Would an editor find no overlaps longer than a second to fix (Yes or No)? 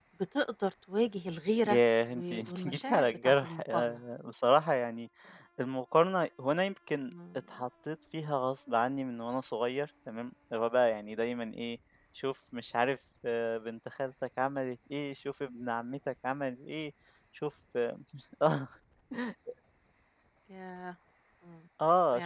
No